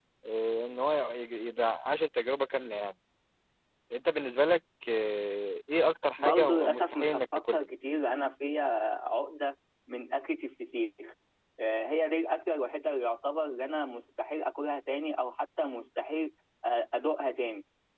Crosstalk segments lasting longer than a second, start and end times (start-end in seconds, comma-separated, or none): 6.2-7.7